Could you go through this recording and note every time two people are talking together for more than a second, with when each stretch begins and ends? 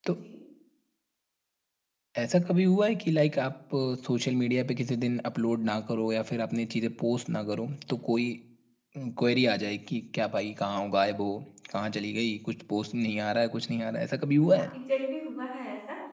none

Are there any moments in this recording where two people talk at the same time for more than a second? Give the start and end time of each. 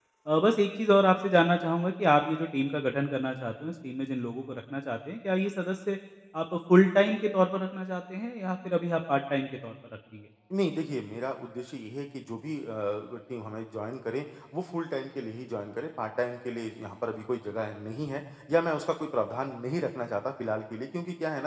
none

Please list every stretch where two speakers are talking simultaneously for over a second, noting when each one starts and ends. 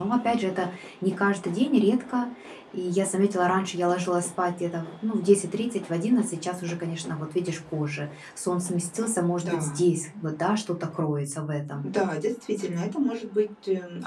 none

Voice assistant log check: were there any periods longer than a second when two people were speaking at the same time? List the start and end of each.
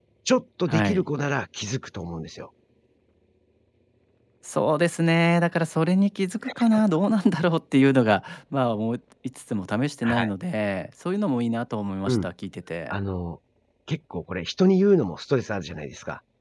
none

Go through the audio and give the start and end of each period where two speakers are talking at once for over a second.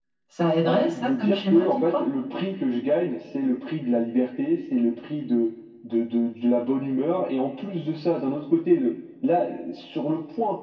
0.7-2.0

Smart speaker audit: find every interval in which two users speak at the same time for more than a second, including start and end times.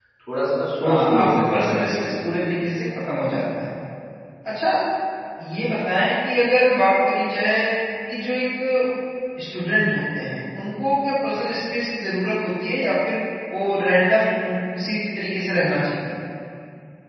0.8-2.1

